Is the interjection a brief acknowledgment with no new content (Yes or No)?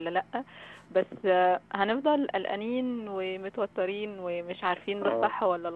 Yes